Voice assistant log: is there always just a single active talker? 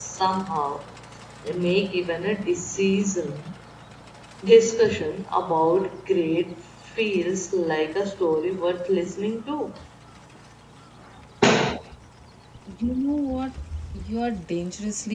Yes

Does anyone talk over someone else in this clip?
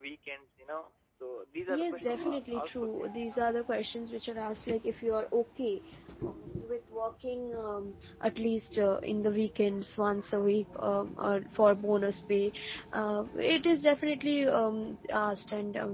Yes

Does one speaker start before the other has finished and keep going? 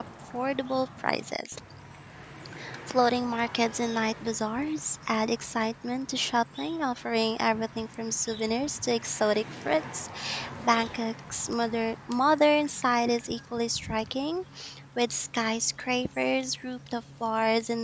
No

